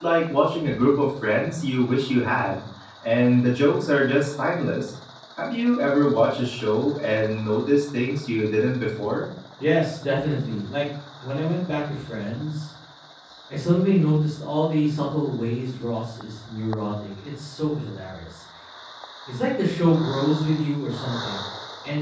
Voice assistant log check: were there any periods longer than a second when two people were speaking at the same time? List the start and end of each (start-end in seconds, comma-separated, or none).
none